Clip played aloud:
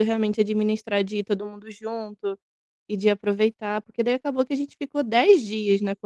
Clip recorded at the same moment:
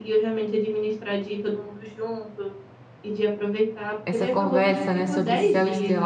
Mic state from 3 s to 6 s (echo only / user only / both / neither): both